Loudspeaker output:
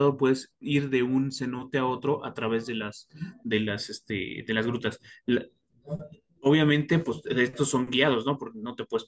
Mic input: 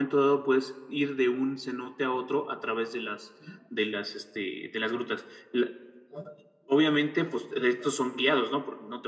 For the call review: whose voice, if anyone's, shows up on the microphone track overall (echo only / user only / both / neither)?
echo only